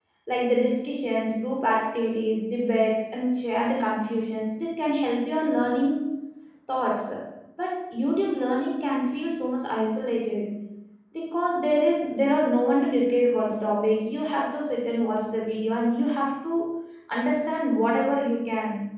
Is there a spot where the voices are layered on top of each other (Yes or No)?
No